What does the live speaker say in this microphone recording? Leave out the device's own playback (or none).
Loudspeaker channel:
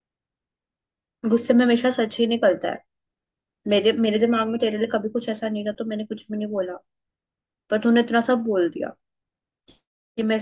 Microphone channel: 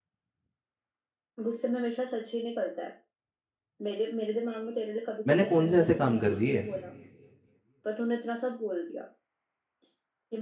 मैंने कौन से ऐसे काम कर दिए